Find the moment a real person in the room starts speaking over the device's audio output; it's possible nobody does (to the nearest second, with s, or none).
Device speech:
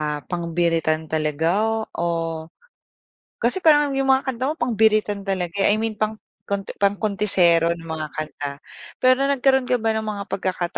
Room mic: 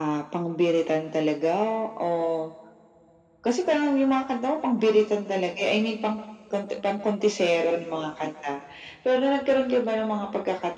none